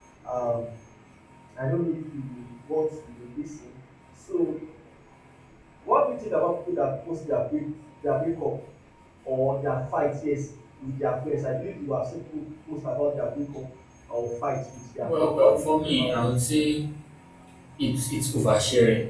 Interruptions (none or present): present